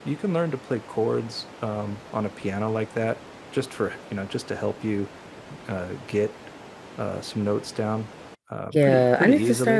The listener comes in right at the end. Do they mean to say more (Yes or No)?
Yes